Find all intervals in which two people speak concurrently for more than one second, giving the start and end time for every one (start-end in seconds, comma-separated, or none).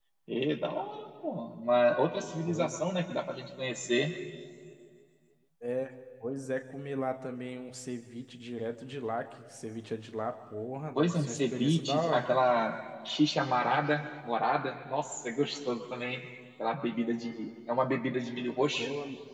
10.9-12.3